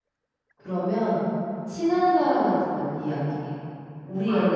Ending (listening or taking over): listening